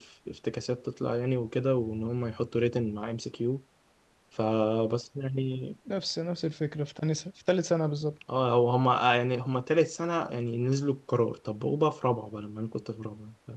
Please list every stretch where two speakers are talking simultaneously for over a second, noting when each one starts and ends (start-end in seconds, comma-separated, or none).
none